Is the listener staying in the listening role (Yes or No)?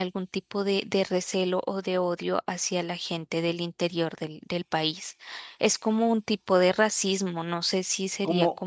No